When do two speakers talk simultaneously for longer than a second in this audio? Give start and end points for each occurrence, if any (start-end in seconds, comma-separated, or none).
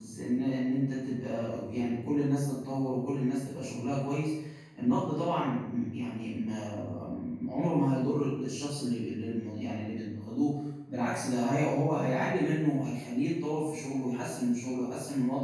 none